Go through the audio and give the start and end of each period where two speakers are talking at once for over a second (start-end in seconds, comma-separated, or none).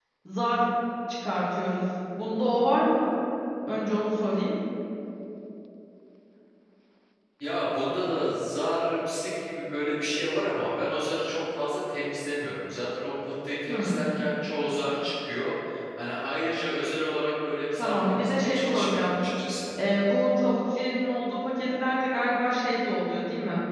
17.8-19.2